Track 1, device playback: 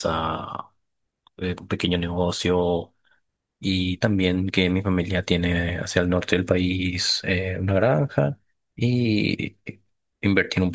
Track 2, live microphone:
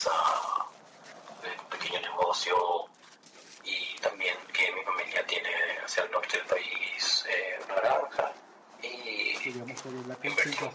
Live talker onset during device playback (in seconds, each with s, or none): 9.4 s